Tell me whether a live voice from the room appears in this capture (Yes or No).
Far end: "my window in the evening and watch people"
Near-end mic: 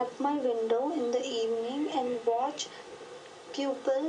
No